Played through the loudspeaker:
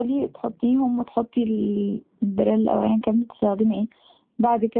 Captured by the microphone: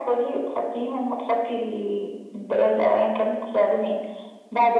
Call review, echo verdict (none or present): present